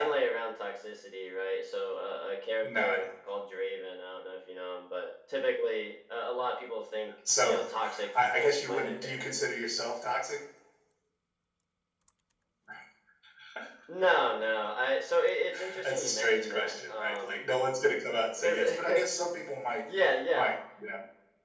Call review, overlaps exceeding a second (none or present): present